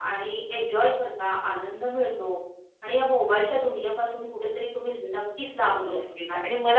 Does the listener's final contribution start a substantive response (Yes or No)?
Yes